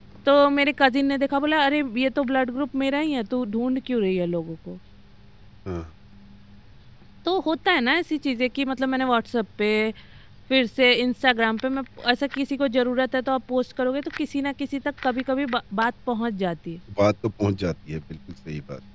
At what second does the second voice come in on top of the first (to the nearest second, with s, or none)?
none